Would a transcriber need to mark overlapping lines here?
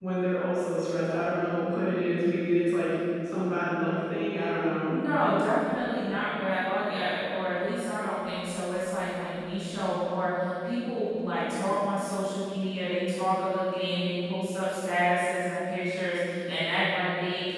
No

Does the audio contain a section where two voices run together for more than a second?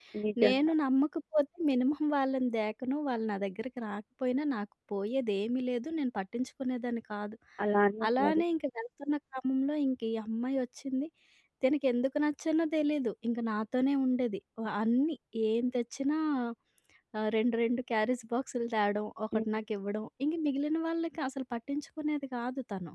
No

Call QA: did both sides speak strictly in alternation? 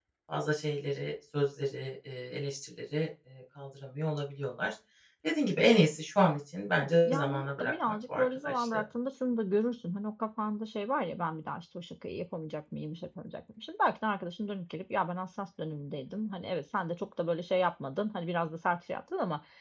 No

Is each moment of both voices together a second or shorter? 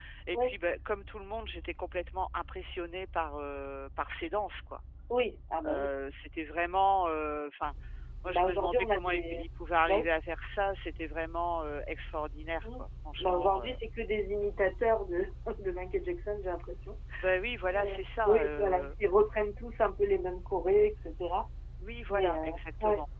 No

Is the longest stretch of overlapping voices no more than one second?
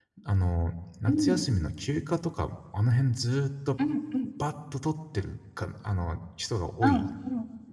Yes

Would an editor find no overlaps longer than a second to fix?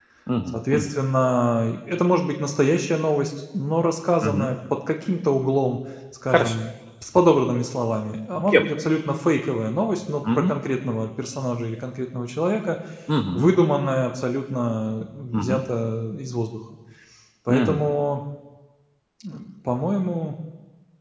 Yes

